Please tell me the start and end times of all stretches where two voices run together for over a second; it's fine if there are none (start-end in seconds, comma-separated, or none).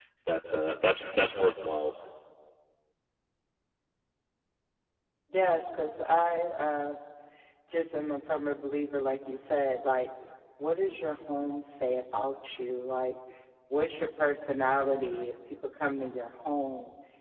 none